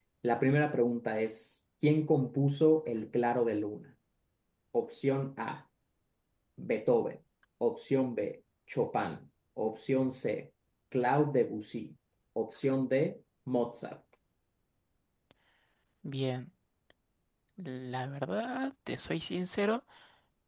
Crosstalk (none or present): none